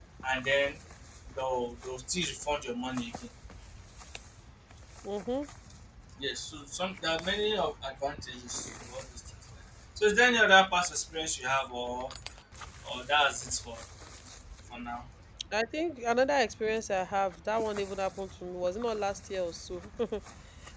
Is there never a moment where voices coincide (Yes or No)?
Yes